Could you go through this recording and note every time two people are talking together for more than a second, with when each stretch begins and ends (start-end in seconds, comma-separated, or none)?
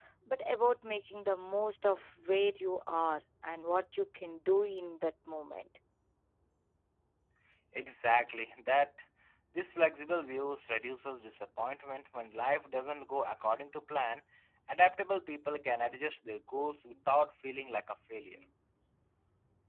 none